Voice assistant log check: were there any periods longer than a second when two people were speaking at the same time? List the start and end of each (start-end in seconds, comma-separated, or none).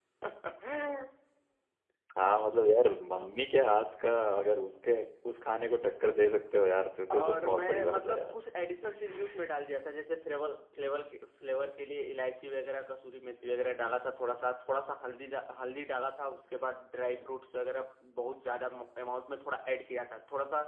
7.1-8.4